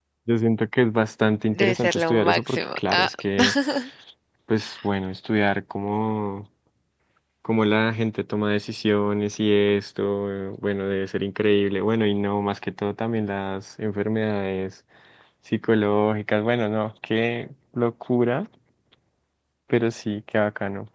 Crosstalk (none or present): present